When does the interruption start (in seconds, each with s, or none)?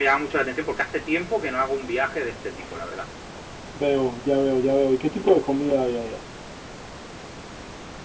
none